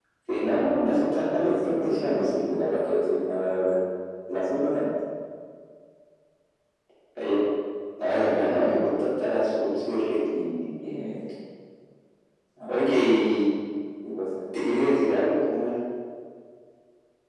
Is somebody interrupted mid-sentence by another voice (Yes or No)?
Yes